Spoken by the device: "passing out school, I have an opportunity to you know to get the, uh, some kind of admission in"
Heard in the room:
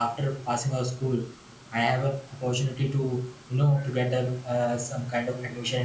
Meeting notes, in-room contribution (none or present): none